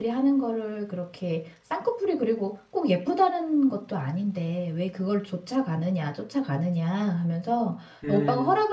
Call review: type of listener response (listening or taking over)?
listening